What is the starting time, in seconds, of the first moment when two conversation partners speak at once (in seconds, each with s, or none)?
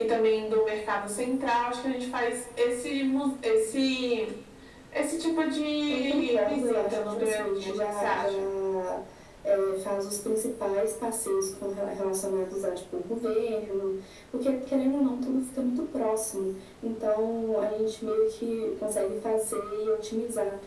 5.9 s